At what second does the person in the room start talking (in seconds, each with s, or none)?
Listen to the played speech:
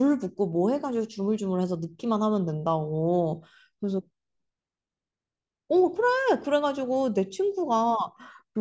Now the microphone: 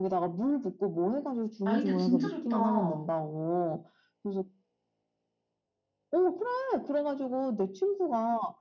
1.6 s